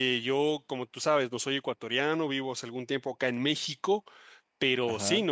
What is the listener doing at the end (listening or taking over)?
listening